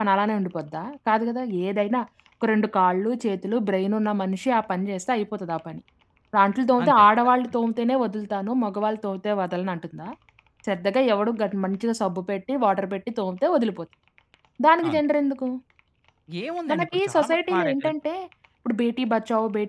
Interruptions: present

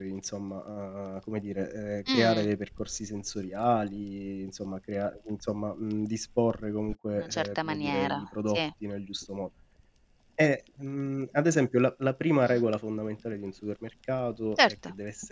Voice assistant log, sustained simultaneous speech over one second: present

